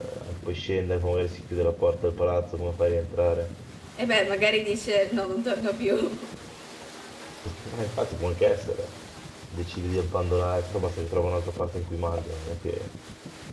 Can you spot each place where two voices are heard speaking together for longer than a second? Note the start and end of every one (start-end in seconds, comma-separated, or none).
none